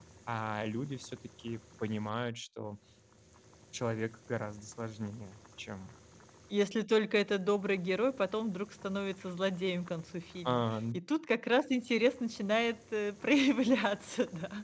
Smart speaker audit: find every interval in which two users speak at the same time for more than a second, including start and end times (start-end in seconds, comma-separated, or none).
none